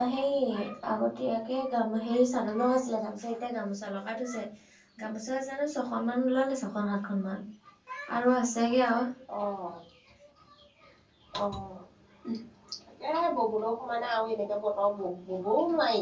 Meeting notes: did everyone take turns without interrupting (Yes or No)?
Yes